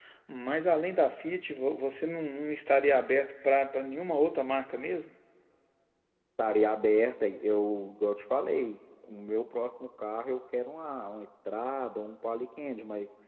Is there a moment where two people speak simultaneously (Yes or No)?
No